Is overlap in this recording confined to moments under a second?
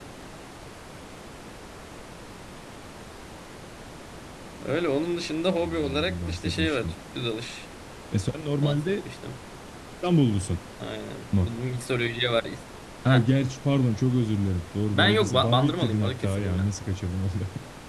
No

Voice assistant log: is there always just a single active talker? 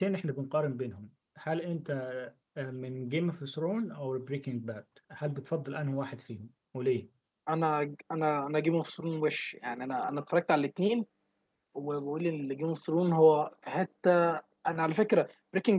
Yes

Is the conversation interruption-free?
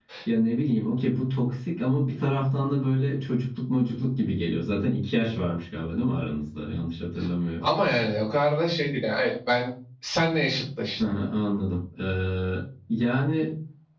Yes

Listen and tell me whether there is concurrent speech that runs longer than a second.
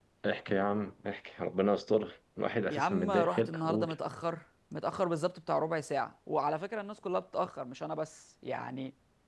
Yes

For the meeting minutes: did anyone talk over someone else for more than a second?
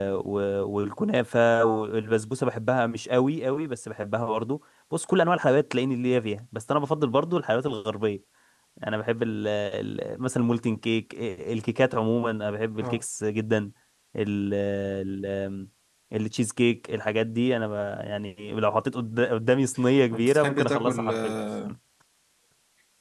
Yes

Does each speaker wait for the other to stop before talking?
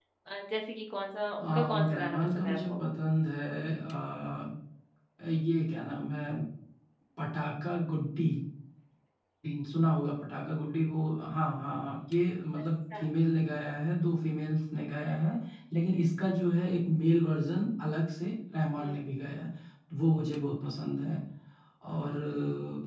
No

